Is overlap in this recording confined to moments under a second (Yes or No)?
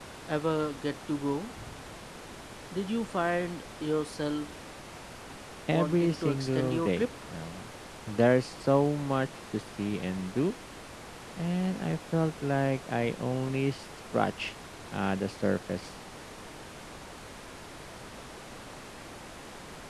No